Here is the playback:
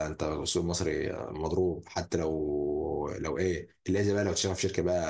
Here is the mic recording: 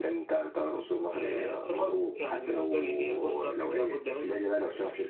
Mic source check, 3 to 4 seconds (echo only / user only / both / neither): both